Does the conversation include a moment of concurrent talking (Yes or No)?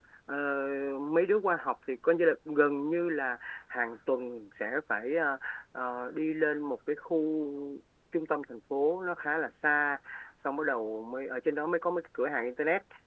No